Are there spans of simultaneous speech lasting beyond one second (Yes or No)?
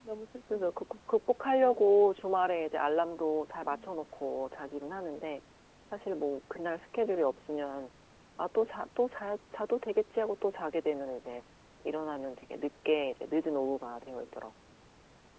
No